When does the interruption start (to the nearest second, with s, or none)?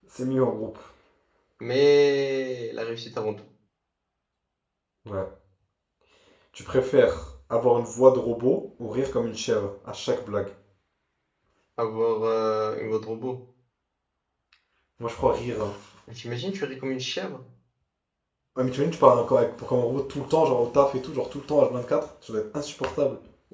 none